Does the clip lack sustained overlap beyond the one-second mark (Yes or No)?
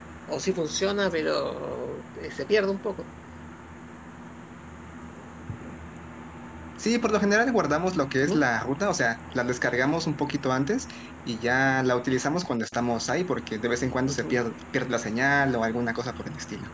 Yes